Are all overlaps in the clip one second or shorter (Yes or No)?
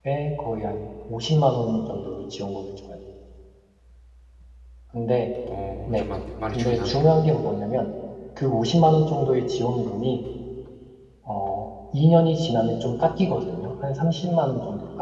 Yes